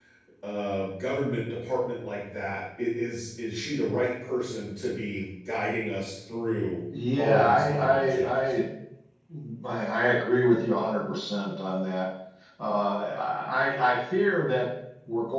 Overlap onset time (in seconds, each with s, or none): 7.2 s